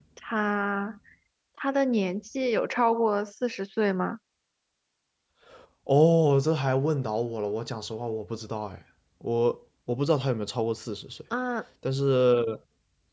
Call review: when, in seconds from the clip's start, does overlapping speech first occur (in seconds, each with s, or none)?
none